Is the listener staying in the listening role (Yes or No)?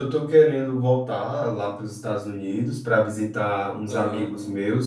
Yes